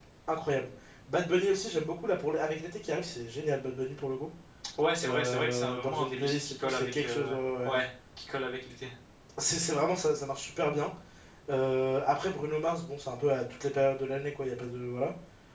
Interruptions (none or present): present